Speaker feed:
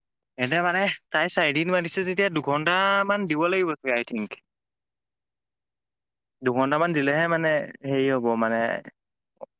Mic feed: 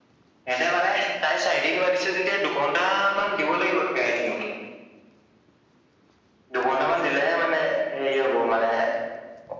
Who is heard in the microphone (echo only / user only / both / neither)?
echo only